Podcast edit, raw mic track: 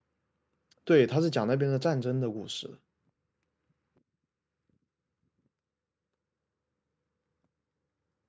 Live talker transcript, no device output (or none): 对，他是讲那边的战争的故事。